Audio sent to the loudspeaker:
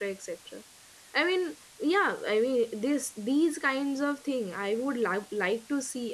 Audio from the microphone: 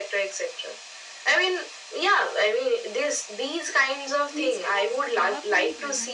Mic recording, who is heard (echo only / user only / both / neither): both